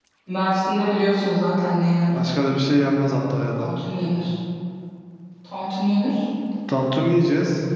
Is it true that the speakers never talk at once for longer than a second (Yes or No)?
Yes